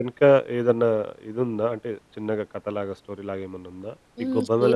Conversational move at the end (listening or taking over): taking over